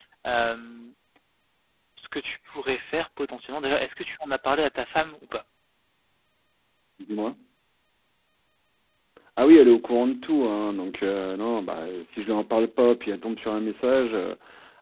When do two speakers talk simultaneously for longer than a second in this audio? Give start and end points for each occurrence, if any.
none

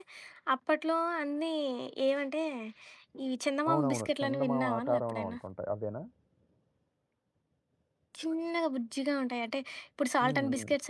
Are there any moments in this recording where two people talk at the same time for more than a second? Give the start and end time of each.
3.7-5.4

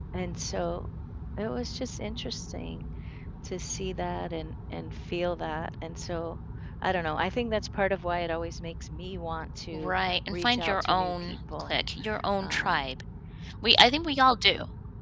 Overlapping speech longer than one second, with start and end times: 9.7-11.8

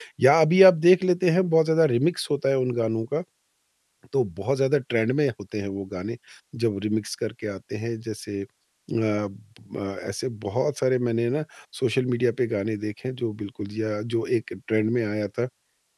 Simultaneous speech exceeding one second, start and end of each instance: none

